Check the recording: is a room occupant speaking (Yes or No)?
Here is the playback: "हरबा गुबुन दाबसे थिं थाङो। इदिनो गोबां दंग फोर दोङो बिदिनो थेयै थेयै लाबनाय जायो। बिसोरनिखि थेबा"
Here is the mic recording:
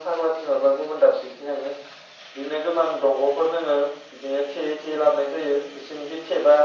No